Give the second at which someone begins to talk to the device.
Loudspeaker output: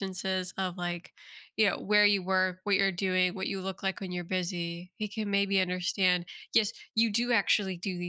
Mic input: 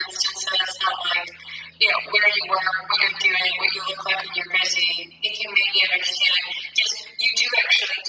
none

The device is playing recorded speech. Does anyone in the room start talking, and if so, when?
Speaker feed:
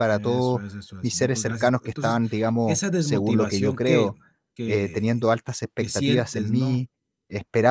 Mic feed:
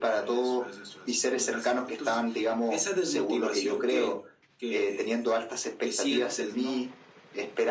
none

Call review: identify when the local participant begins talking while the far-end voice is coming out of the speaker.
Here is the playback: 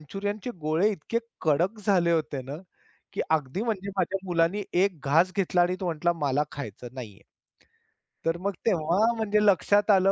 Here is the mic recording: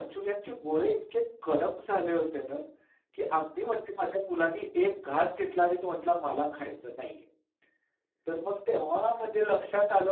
none

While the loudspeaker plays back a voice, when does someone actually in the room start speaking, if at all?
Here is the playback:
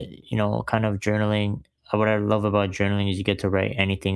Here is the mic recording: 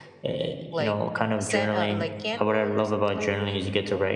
1 s

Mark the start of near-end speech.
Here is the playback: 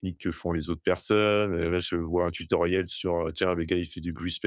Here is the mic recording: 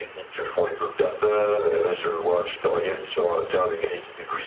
none

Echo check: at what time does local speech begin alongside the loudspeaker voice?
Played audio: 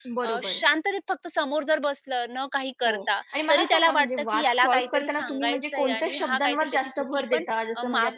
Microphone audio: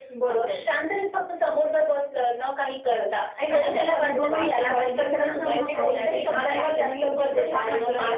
3 s

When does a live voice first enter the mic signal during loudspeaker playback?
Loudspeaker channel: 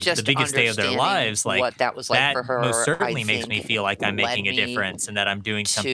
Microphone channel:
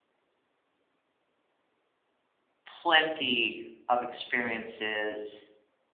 3 s

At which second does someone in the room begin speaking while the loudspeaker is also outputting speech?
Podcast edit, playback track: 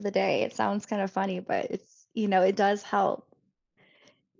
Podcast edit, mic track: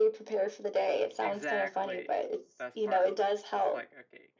1 s

